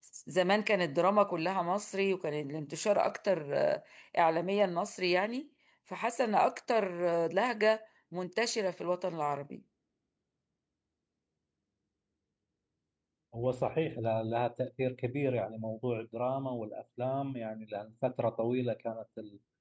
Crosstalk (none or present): none